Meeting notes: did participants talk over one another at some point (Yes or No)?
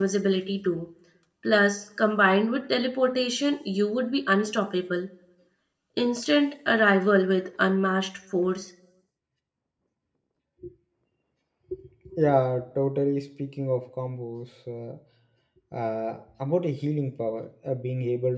No